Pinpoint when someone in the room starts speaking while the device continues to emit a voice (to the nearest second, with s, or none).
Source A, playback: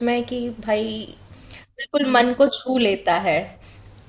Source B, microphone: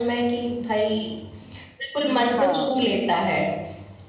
2 s